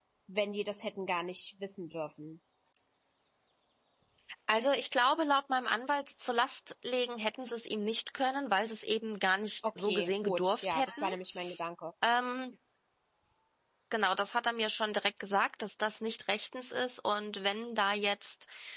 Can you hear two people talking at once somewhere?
Yes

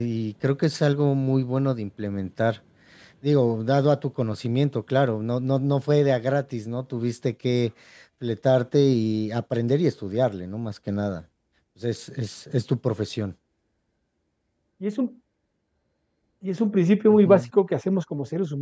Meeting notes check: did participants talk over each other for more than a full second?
No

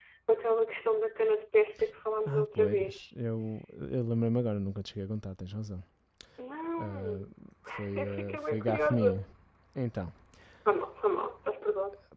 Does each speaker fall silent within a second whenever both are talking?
No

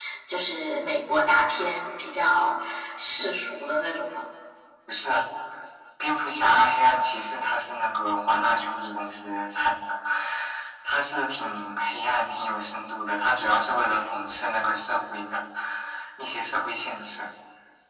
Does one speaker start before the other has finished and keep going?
No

